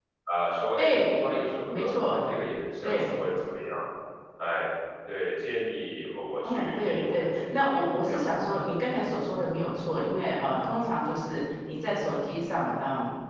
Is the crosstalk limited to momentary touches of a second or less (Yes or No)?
No